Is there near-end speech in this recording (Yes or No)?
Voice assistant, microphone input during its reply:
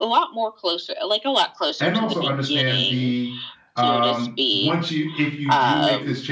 Yes